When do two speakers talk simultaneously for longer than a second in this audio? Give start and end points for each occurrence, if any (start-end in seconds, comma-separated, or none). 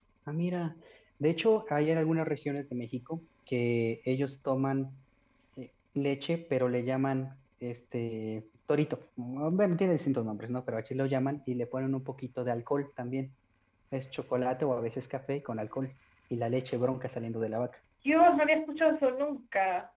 none